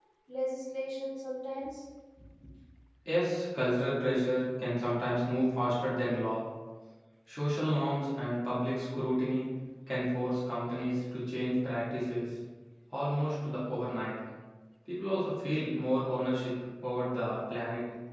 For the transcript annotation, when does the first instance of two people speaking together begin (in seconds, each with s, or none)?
none